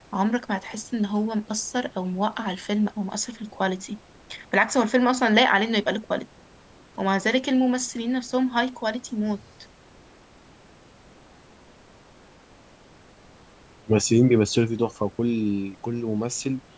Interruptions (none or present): none